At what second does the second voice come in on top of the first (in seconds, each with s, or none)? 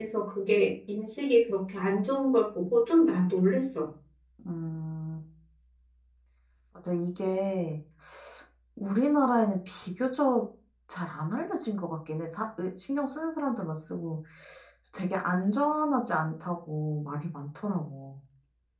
none